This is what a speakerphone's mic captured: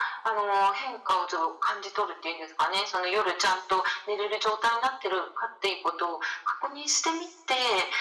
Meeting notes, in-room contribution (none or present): none